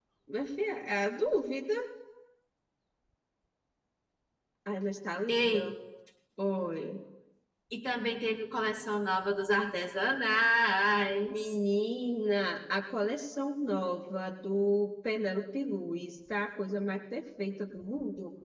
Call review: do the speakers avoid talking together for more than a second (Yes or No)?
Yes